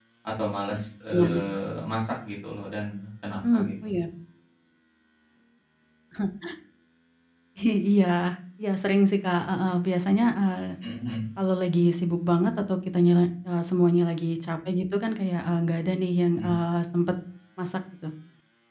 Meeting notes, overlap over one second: none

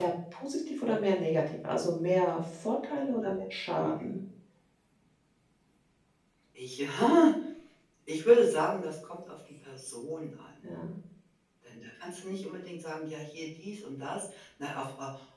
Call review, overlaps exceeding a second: none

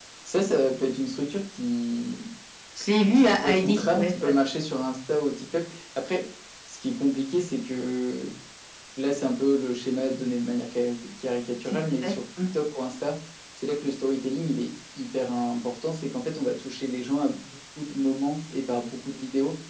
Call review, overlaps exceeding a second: present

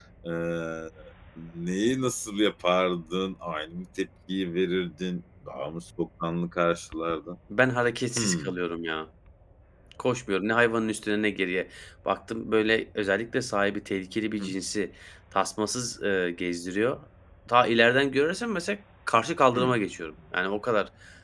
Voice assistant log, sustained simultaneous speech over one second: none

